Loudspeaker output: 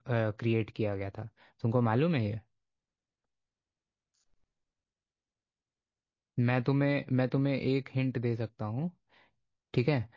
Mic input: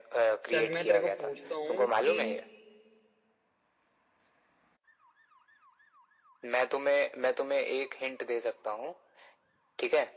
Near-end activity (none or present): present